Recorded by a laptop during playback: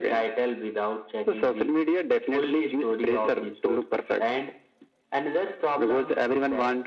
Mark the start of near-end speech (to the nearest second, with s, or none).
none